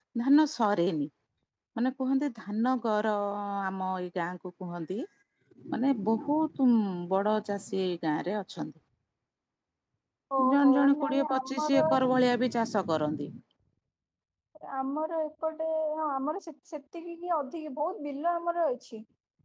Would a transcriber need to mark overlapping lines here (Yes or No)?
Yes